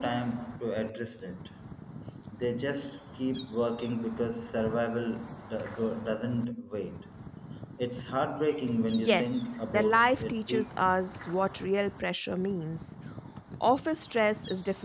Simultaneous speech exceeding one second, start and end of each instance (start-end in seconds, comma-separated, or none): 9.0-10.9